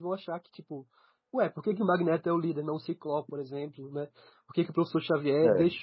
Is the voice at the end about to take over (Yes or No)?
No